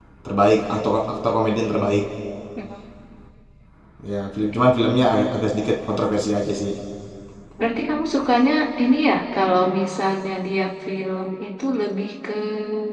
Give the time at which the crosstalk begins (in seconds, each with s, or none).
none